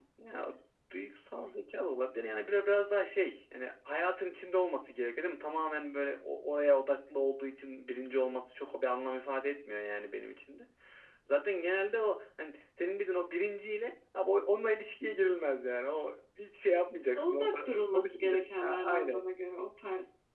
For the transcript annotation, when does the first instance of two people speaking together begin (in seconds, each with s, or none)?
17.1 s